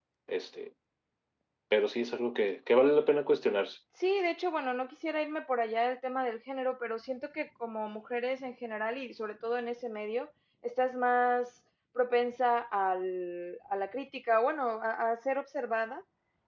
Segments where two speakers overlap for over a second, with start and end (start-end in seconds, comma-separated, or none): none